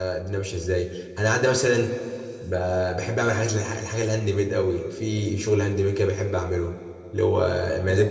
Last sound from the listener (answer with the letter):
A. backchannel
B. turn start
A